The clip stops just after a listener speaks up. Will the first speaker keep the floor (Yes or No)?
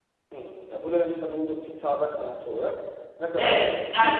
No